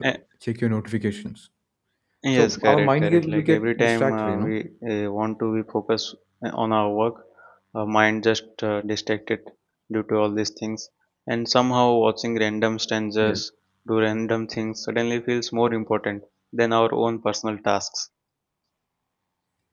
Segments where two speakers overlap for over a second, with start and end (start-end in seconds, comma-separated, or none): 2.4-4.5